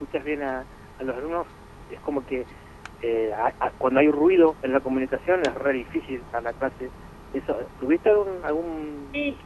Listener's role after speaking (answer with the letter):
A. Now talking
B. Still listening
A